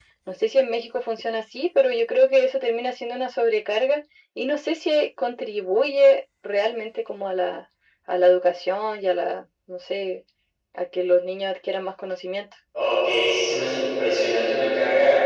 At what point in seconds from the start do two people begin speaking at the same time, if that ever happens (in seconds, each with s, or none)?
none